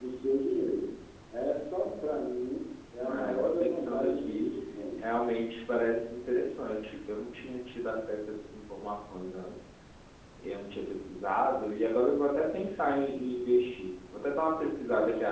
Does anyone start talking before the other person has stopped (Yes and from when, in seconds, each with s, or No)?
Yes, from 3.0 s